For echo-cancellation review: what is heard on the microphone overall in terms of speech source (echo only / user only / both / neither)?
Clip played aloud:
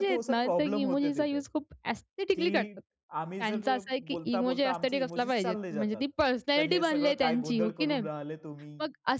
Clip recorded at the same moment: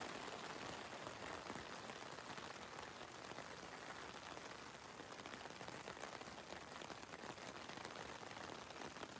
neither